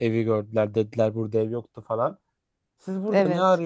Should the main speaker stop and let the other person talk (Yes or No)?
No